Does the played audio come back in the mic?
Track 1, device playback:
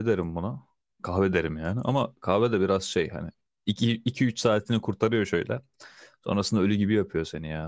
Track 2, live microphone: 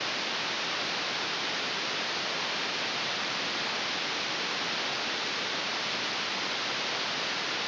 No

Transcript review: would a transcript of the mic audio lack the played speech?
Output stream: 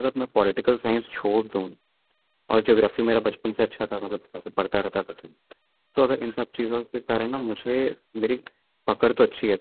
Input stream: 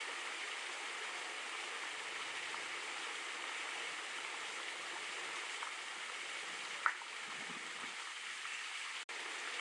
Yes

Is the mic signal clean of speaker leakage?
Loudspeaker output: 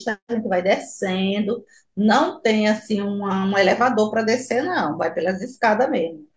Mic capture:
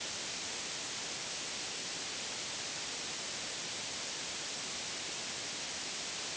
Yes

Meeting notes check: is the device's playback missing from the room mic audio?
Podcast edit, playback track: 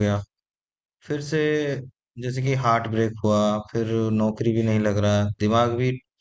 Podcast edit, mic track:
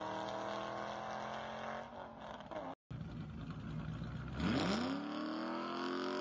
Yes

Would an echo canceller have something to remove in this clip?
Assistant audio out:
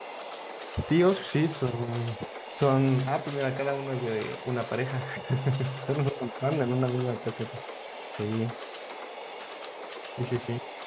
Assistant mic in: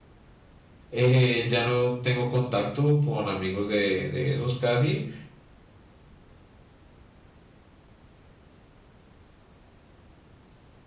No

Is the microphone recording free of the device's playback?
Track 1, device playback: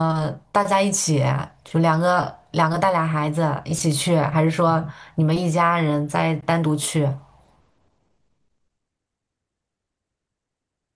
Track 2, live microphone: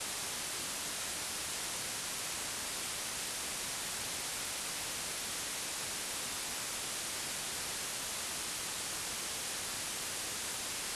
Yes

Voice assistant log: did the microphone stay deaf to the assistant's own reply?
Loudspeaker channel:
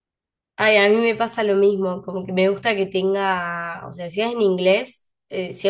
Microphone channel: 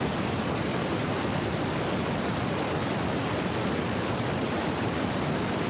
Yes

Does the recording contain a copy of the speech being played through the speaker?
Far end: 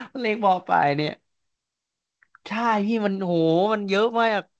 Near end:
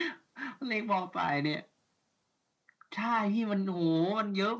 Yes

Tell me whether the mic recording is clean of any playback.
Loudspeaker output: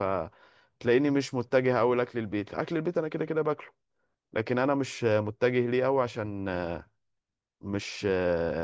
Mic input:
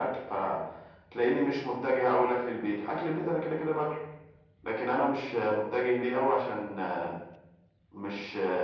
No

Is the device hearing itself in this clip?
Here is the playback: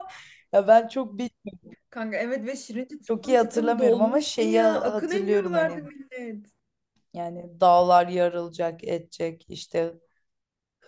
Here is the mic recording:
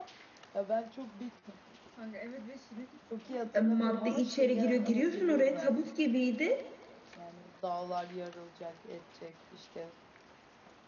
Yes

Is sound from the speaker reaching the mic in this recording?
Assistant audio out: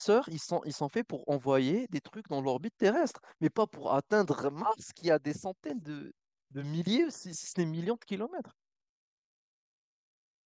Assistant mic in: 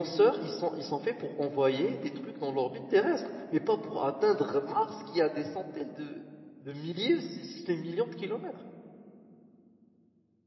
Yes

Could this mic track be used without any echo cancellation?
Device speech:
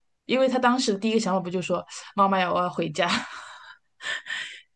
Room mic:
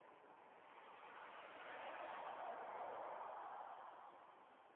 Yes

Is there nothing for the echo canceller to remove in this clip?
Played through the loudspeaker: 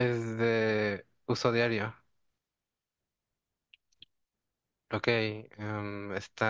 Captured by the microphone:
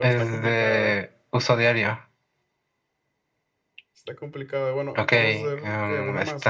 No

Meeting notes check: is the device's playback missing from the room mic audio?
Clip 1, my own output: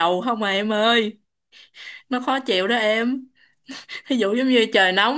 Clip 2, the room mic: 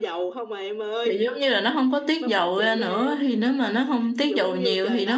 No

